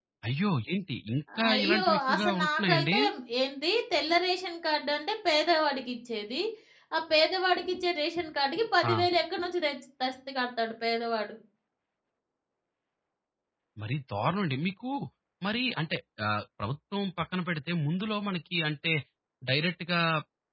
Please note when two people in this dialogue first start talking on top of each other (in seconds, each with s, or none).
1.3 s